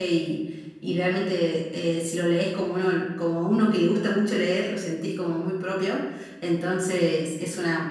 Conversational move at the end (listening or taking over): listening